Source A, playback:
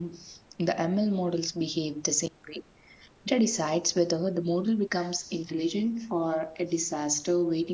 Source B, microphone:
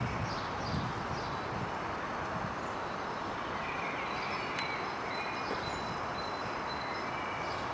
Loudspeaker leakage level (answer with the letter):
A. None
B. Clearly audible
A